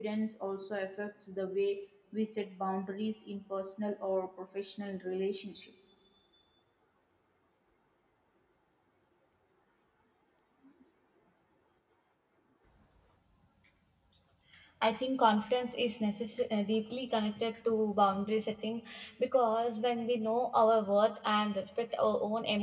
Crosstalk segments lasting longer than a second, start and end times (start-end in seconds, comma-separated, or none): none